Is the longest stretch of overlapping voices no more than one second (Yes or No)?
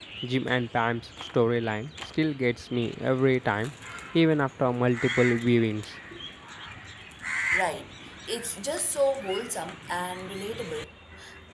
Yes